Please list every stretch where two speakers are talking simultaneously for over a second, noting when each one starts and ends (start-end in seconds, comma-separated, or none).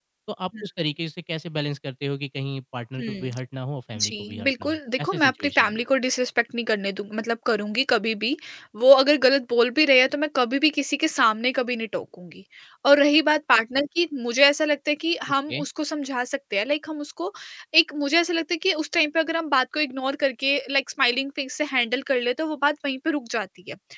4.0-5.8